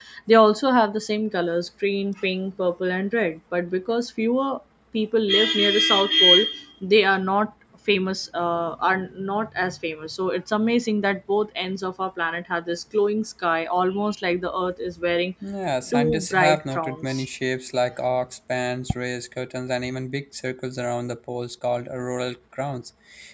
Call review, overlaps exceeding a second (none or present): present